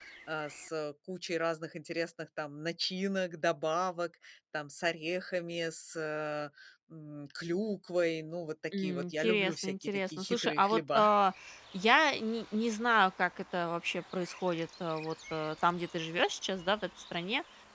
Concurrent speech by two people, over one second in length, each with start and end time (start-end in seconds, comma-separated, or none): 8.8-11.0